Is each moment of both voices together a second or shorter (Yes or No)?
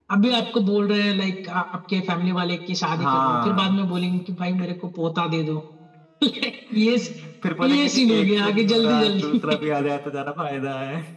No